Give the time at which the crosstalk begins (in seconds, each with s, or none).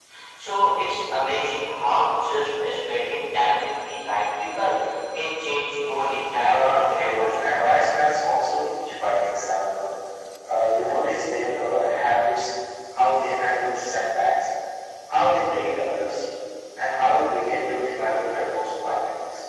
6.4 s